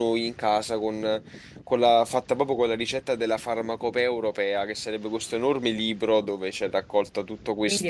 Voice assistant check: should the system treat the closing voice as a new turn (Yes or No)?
Yes